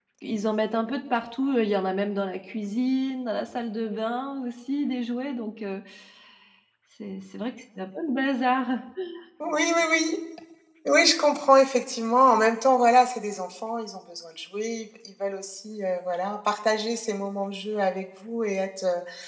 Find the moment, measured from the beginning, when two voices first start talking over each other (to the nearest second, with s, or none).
none